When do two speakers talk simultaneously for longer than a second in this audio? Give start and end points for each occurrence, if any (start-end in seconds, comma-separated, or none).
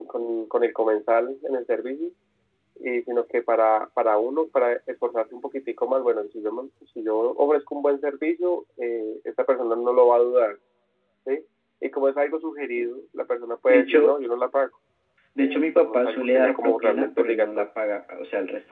15.9-17.7